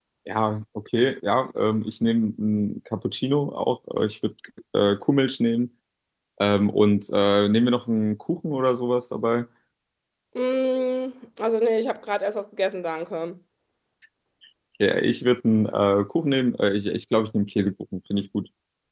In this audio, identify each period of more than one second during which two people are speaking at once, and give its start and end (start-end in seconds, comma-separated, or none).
none